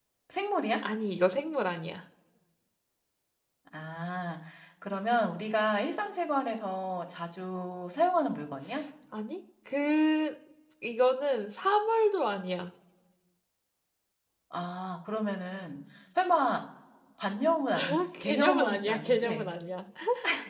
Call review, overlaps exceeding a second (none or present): present